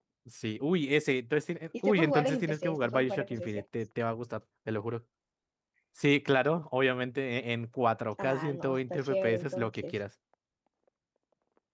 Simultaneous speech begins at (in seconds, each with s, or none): 1.8 s